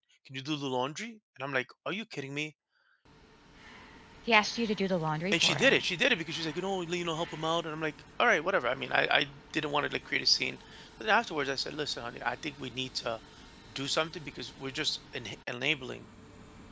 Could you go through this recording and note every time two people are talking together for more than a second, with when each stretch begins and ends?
none

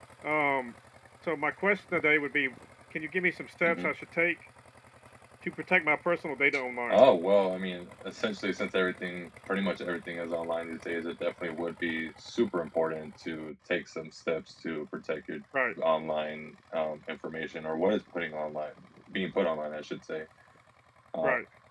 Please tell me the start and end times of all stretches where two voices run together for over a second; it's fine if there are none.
none

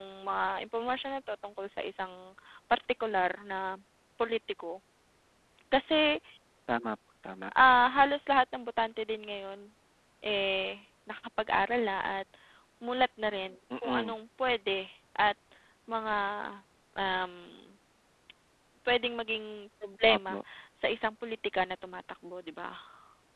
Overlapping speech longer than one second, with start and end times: none

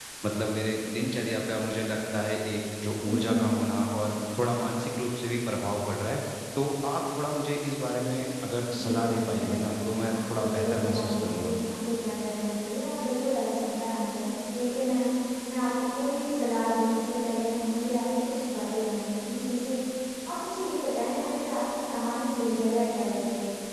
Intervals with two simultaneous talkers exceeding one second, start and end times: 8.8-11.6

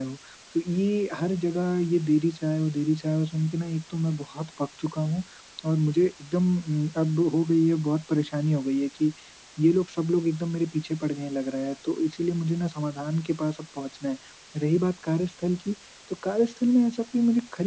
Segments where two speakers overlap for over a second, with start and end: none

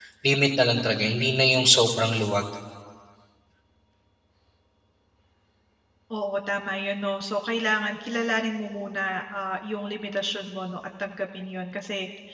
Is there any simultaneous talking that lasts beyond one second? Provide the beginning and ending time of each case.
none

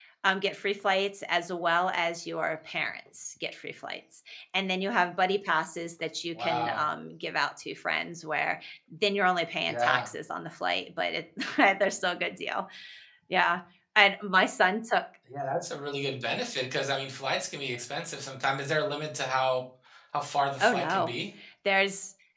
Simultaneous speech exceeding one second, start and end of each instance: none

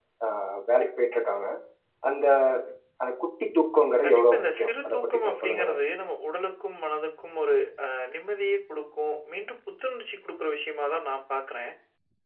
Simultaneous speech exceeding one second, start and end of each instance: 4.0-5.8

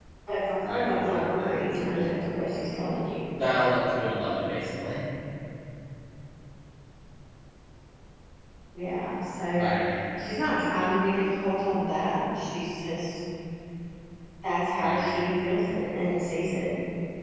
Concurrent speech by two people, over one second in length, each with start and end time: 0.6-2.2

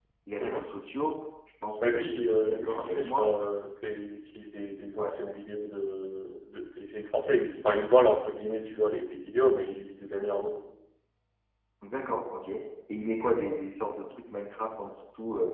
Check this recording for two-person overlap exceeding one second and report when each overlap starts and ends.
2.0-3.3

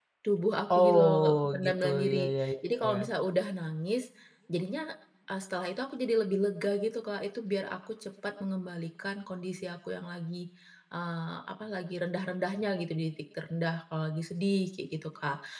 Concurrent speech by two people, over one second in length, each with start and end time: 0.8-3.0

